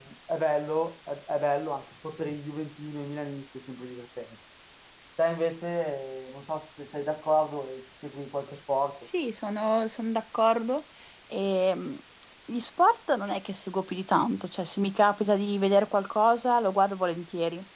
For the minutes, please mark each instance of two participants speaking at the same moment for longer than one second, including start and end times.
none

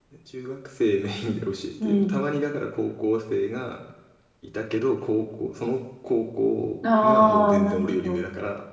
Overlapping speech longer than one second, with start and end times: 7.0-8.2

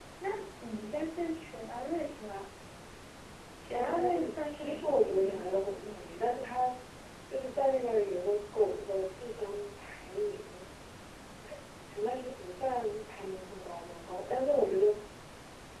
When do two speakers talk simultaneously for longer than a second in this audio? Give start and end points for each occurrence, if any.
3.7-6.4

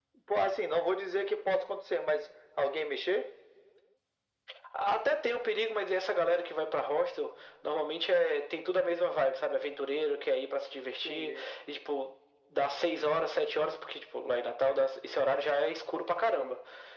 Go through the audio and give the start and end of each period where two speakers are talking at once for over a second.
none

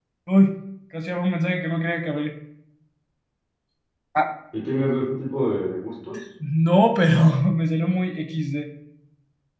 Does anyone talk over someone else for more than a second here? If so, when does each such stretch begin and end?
none

